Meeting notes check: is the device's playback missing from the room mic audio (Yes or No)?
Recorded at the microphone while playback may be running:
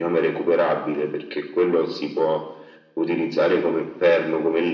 No